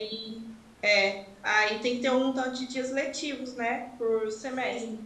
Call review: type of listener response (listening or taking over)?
listening